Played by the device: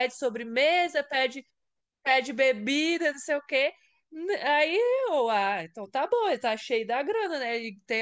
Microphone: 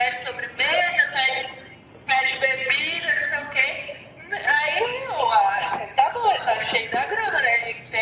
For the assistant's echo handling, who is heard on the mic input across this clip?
echo only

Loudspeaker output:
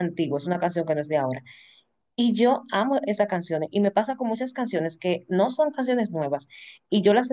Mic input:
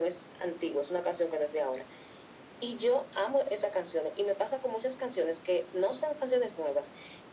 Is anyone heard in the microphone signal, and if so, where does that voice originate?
echo only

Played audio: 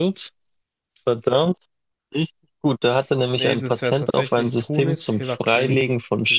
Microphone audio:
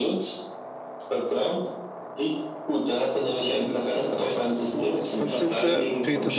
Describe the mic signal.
both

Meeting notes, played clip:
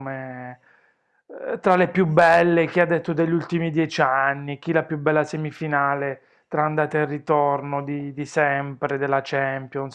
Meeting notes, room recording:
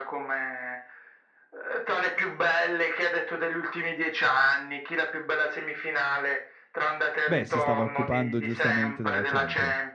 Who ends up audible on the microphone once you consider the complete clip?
both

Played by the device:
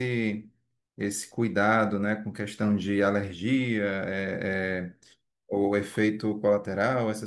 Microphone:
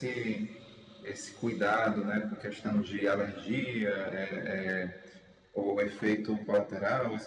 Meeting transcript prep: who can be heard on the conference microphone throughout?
echo only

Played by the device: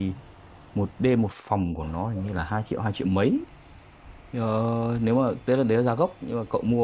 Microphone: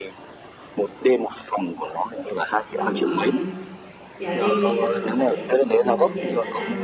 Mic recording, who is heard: both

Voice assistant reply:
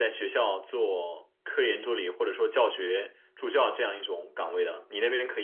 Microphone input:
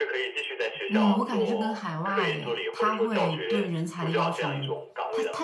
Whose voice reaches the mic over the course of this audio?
both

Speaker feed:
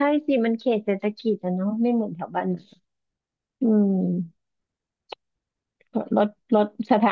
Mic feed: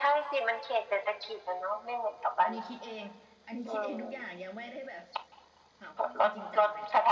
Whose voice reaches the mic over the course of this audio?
both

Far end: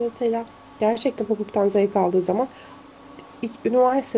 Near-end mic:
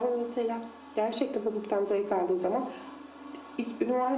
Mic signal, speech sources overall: echo only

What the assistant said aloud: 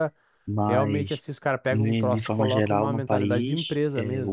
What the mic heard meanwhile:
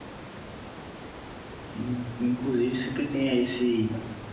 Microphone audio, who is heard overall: user only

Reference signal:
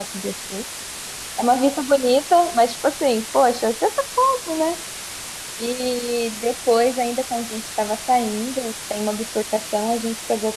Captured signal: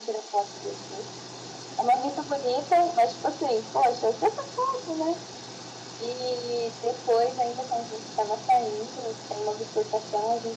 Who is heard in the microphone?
echo only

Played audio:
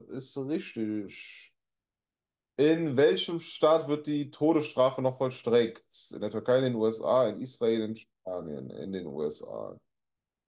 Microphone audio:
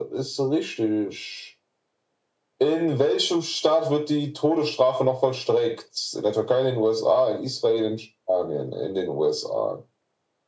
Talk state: echo only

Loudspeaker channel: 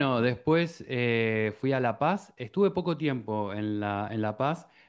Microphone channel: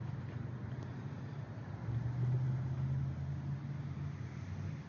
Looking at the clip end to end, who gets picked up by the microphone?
neither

